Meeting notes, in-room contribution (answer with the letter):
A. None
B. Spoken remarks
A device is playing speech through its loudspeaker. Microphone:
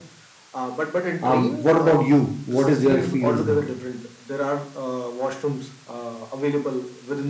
B